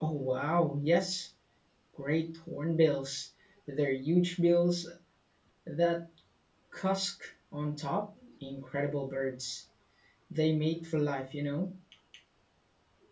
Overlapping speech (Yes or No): No